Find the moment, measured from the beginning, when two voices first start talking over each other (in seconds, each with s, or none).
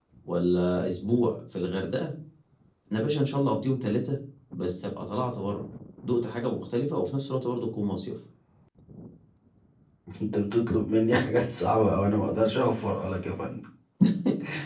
none